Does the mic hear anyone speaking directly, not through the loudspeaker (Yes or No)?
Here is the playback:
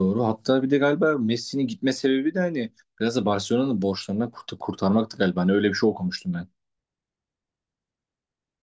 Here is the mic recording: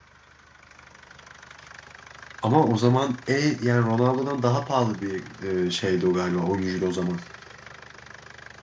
Yes